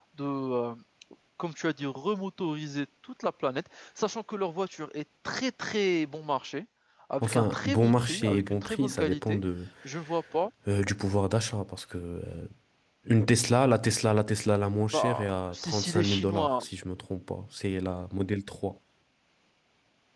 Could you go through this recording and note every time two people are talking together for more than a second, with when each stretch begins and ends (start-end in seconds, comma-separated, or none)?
7.2-9.4, 14.9-16.6